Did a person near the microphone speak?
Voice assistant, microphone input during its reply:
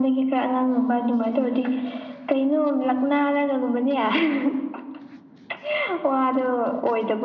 No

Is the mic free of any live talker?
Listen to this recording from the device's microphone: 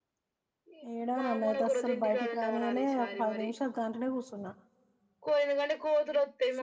No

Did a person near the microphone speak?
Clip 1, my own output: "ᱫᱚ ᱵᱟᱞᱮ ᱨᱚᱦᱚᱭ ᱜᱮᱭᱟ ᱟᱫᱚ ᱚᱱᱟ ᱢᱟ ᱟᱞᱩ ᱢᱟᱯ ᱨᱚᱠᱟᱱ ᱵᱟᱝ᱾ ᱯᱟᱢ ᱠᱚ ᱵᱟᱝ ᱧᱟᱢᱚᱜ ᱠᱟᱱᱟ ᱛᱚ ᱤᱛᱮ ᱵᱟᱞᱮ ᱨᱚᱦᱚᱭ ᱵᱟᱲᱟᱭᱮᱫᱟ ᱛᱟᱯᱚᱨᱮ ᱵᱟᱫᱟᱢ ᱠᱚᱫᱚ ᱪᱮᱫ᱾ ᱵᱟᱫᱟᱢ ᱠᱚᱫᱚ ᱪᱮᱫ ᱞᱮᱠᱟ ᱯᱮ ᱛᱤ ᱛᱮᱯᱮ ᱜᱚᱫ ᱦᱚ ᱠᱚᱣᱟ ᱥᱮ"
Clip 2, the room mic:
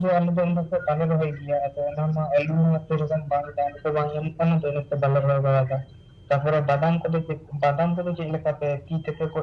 No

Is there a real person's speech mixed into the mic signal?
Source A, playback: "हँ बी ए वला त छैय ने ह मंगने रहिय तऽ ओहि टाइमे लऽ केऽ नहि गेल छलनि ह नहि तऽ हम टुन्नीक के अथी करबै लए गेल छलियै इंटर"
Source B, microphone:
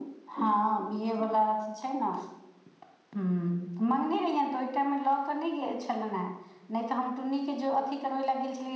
No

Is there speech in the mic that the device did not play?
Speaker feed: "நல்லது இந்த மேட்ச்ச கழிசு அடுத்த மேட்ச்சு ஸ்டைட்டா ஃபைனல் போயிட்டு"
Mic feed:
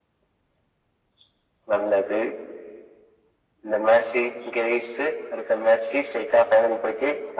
No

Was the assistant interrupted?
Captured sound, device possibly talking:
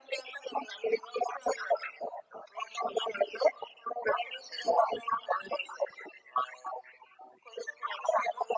No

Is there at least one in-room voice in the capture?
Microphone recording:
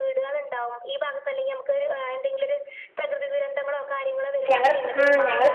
Yes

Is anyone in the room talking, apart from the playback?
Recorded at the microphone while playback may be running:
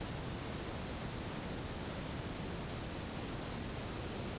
No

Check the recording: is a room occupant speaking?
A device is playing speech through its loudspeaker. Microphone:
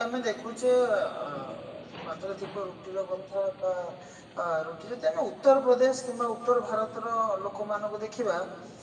Yes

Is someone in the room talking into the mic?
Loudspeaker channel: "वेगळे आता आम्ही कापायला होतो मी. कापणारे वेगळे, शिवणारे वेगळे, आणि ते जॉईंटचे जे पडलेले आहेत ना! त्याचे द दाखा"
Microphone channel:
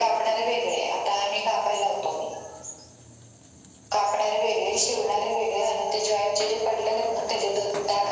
No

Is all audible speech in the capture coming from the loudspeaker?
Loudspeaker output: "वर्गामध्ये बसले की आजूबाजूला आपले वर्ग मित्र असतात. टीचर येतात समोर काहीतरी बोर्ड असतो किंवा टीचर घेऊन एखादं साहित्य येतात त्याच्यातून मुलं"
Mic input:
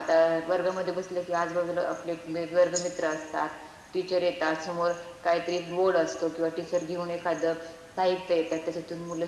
Yes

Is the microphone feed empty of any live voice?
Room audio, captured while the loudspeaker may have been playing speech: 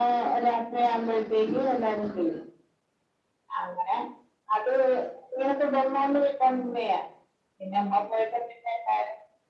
Yes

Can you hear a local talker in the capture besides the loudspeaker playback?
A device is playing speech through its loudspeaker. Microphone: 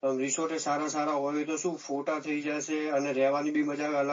No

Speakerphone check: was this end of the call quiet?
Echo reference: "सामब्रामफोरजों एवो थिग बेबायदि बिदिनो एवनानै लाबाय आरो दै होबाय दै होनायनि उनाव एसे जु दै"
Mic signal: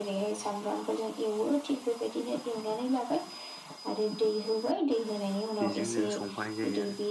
No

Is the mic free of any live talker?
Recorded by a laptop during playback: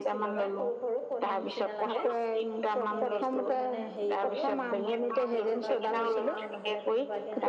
No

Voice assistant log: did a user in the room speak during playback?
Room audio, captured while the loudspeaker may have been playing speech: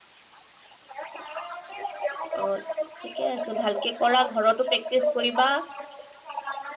Yes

